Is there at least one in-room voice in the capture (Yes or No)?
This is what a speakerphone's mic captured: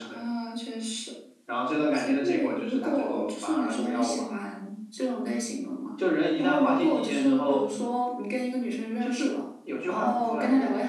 No